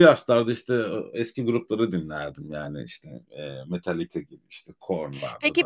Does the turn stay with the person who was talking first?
No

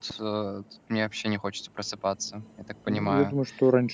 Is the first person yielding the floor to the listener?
Yes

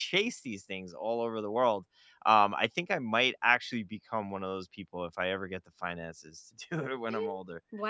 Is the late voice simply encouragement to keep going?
No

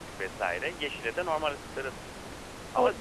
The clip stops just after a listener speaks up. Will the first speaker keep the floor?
No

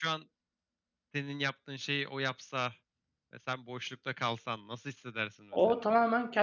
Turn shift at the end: Yes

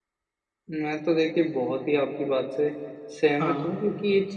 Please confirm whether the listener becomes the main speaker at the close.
No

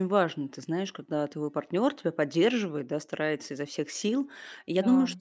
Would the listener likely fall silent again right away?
Yes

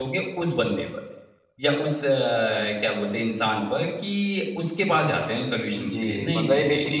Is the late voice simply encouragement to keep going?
No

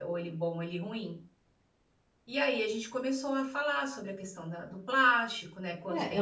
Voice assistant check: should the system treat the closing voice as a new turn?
Yes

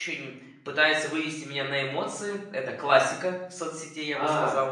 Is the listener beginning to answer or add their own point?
Yes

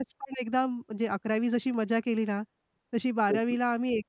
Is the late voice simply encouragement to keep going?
Yes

